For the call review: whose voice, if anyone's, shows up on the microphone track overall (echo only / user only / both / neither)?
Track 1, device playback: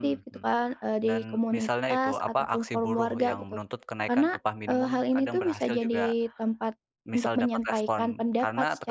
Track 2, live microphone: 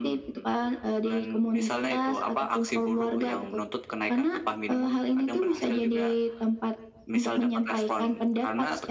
echo only